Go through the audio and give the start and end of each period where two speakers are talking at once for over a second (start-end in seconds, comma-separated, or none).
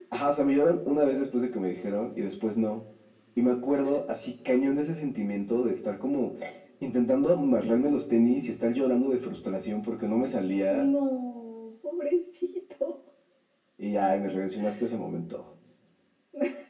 none